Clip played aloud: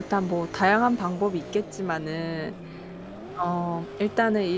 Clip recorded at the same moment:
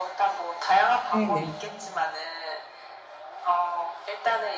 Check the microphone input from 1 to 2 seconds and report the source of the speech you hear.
both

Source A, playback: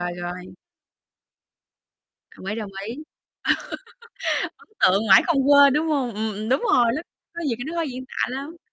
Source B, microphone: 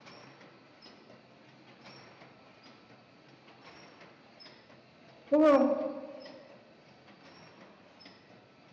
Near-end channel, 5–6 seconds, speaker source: user only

